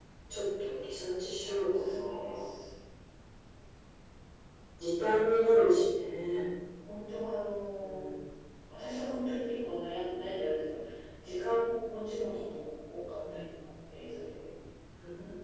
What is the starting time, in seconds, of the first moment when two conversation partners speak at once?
1.4 s

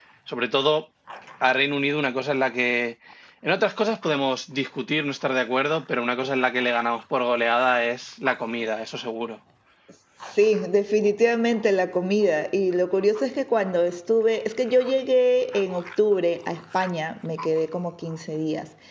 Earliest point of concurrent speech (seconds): none

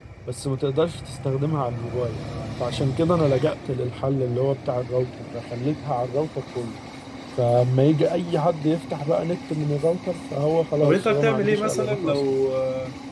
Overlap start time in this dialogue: 10.8 s

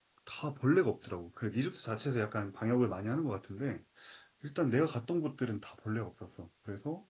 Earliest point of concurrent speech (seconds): none

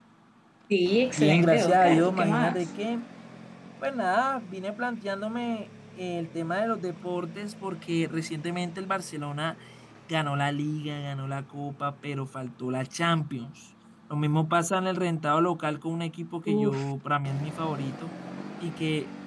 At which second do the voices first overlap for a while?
1.2 s

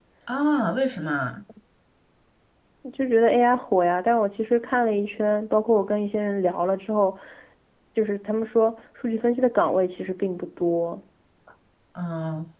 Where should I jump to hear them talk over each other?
none

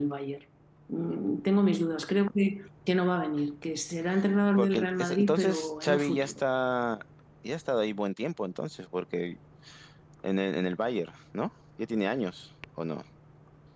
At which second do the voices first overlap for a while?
4.5 s

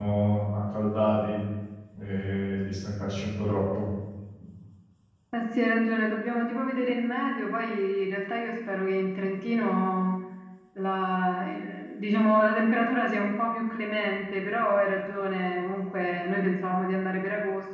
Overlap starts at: none

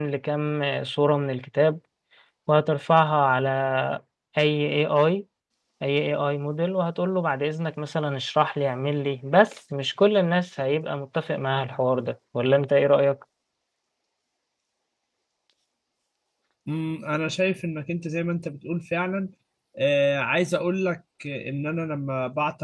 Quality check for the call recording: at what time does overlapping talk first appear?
none

